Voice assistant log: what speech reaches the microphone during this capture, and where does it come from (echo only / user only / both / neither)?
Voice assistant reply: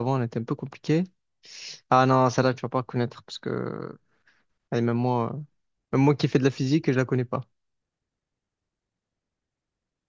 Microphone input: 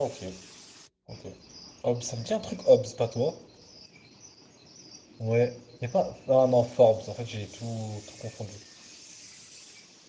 user only